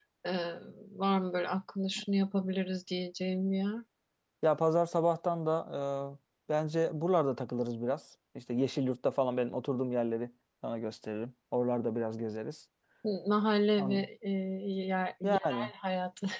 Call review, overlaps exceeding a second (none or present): none